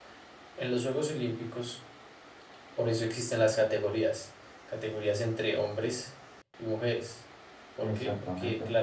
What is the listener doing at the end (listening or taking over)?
listening